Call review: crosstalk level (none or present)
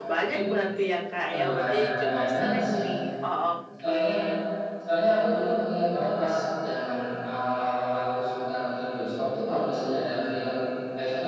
present